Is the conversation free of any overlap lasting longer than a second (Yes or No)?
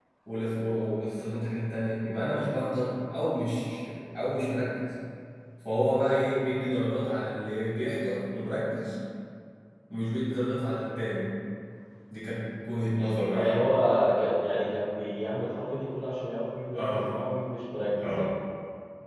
Yes